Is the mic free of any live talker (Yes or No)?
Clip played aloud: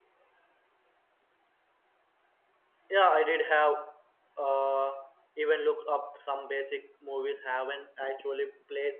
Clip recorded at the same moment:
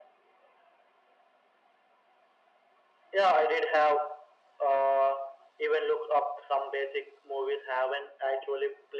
Yes